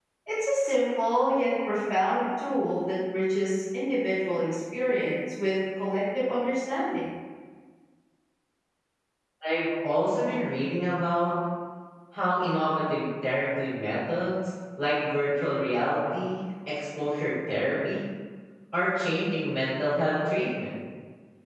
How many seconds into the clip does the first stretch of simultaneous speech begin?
none

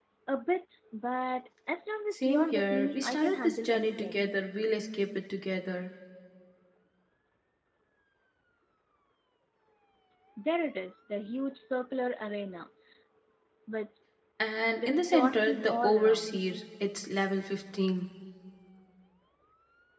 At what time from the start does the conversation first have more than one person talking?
2.1 s

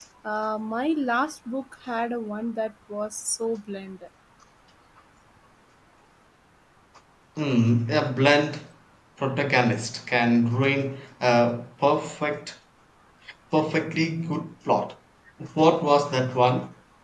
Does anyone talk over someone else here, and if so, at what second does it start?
none

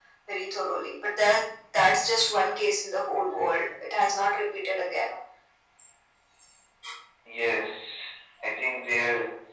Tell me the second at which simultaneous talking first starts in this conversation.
none

